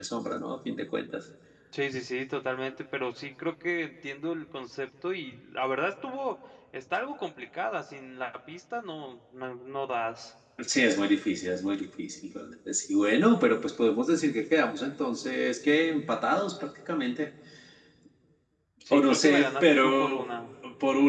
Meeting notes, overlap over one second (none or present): present